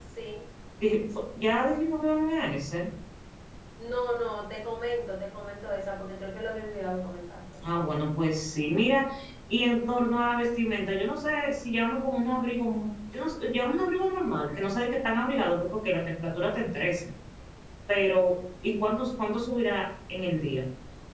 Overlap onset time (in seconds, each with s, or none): none